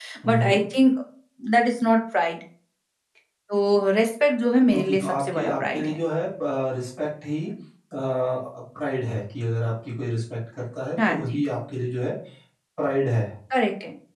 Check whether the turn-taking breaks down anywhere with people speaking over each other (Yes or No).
Yes